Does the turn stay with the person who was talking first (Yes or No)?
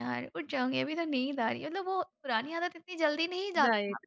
No